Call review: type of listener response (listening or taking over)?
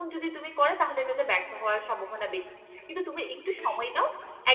listening